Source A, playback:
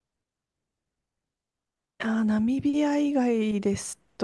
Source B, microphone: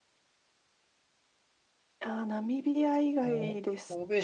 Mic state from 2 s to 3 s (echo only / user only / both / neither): echo only